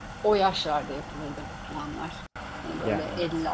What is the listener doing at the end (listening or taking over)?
listening